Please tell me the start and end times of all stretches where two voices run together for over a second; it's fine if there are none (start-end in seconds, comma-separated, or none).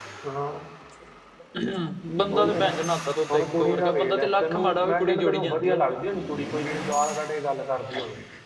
3.3-5.9